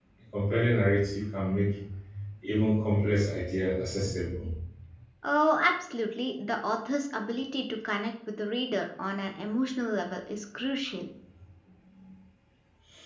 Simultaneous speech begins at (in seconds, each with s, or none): none